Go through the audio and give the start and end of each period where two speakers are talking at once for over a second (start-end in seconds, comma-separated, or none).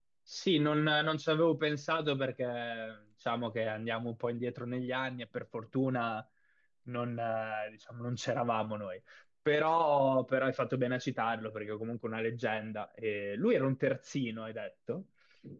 none